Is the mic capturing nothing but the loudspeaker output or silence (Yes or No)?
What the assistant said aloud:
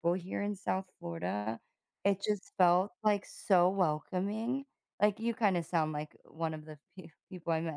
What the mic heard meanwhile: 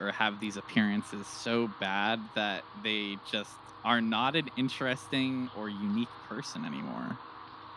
No